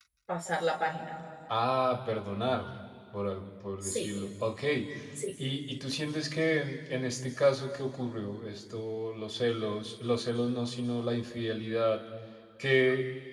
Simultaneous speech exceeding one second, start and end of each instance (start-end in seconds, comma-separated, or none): none